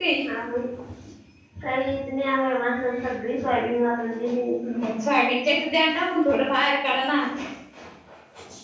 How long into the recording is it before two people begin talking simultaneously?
none

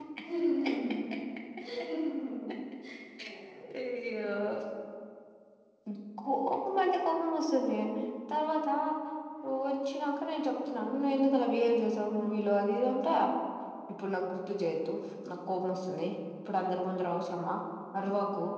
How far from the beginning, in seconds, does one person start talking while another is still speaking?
none

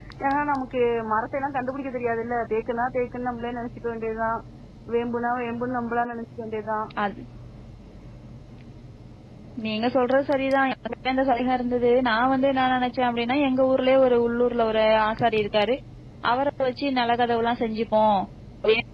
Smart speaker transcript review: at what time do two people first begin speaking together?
none

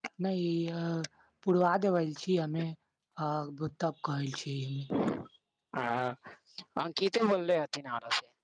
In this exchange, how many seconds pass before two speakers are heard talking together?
none

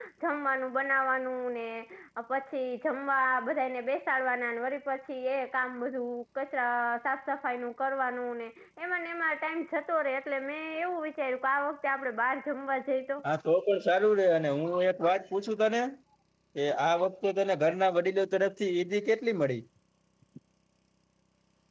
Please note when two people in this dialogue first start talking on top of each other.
none

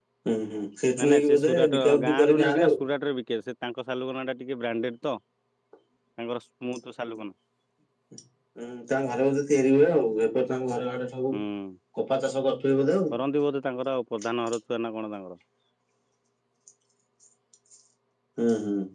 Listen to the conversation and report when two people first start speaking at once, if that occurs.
1 s

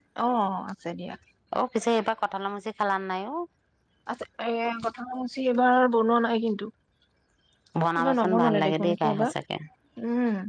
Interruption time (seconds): 8 s

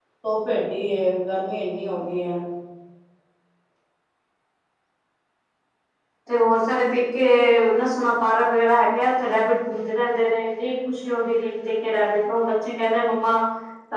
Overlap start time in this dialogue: none

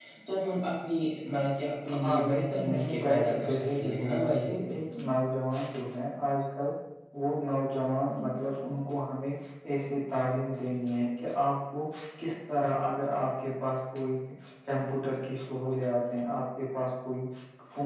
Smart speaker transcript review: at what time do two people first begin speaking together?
2 s

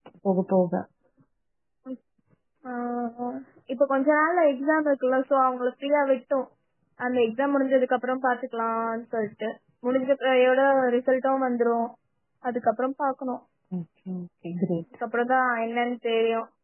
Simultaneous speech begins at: none

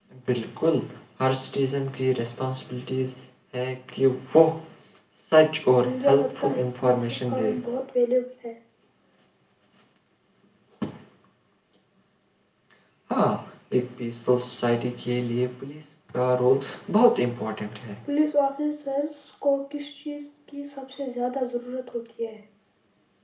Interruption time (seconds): 6 s

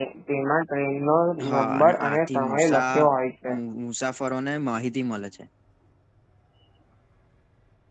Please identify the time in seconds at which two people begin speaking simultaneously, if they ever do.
2 s

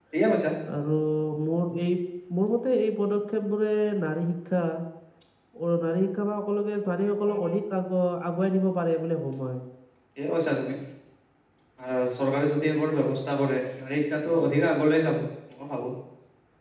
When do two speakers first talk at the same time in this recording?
none

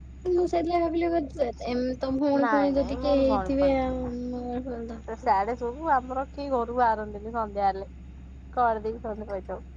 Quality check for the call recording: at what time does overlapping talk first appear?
2 s

